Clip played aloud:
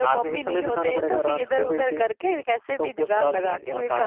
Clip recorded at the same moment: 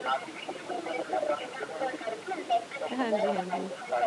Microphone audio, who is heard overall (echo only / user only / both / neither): both